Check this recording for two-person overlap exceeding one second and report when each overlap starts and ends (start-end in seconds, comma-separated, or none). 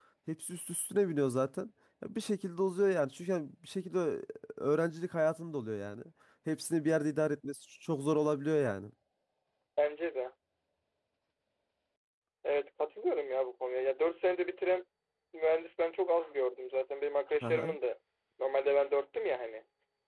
none